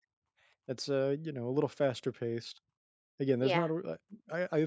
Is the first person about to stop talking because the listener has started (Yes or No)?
No